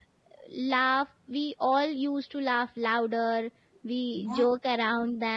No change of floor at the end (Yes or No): Yes